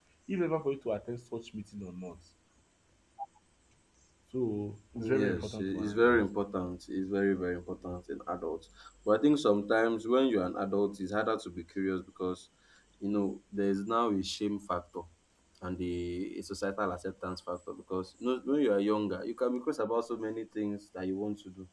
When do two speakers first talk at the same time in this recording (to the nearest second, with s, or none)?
5 s